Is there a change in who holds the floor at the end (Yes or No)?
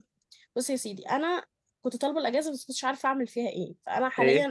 No